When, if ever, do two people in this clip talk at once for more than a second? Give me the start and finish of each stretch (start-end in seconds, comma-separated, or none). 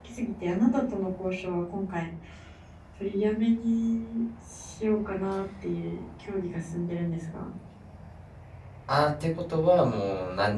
none